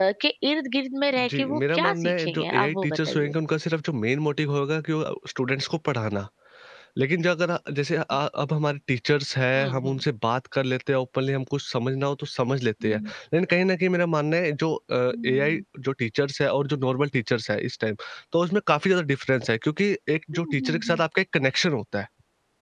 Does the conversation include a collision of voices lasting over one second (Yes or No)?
Yes